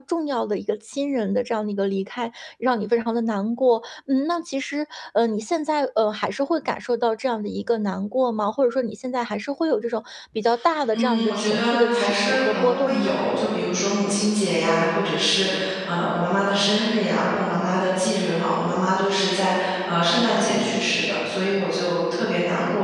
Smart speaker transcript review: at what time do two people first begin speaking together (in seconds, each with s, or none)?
10.9 s